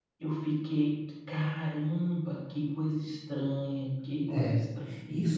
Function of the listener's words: taking over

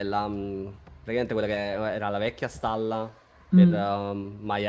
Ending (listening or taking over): listening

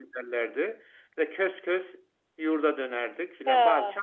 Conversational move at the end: listening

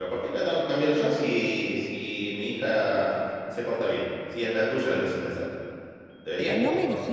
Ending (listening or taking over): taking over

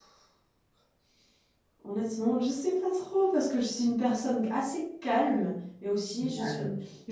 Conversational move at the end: listening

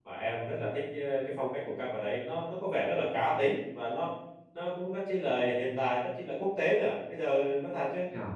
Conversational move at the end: listening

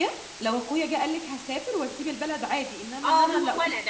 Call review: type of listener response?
taking over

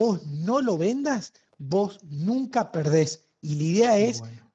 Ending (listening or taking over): listening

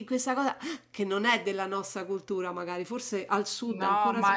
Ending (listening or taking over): taking over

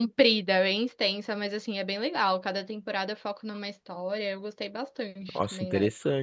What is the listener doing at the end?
taking over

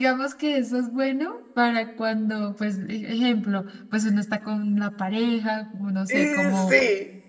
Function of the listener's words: listening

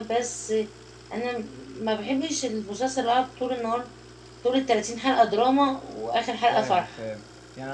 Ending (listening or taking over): taking over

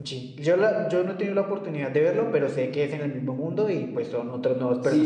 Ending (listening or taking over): taking over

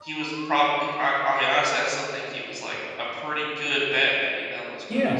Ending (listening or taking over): taking over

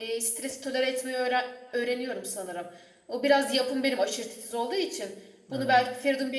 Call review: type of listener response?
listening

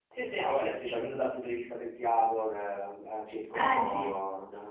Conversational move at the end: listening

